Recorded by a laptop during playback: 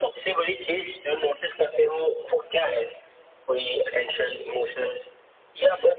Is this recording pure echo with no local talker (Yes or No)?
Yes